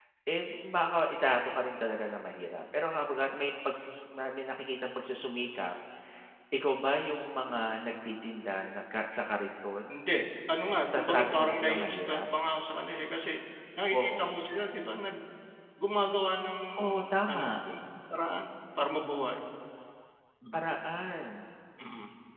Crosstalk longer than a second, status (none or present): present